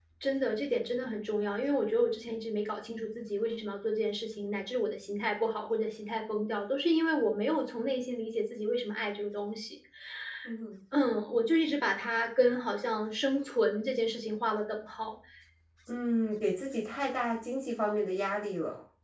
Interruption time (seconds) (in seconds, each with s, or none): none